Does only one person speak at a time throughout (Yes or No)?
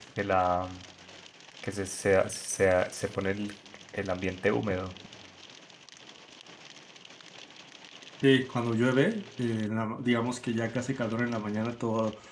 Yes